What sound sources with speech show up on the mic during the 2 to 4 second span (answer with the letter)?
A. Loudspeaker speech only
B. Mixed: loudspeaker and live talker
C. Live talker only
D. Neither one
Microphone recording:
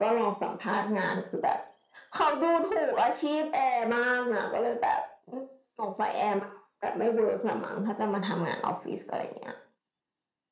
A